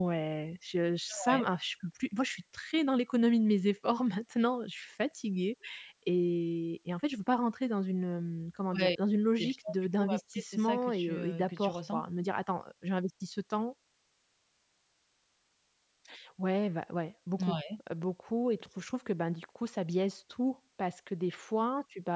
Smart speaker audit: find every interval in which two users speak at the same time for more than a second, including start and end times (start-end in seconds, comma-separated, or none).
9.4-12.1